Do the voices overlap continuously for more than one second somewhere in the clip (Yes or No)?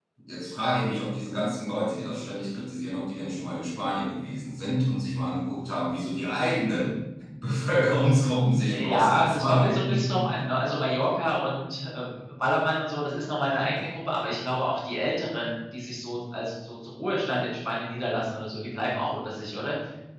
Yes